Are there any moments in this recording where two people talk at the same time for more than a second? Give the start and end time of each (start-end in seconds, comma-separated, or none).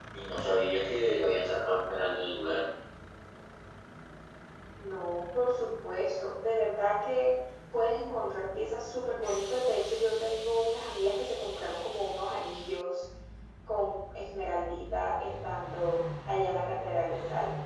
none